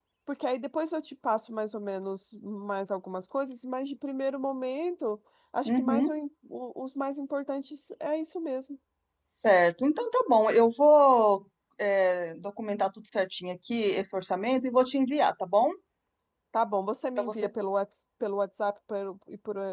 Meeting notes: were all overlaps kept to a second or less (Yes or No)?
Yes